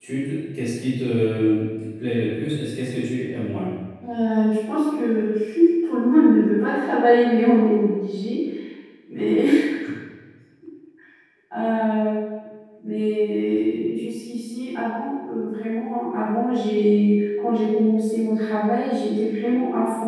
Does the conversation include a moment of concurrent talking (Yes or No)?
No